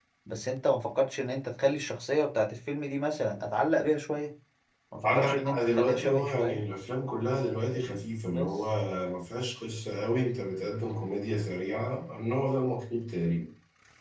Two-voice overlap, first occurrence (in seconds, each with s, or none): 5.0 s